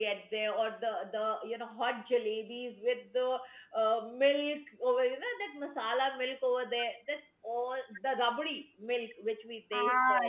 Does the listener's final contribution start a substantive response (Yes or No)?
Yes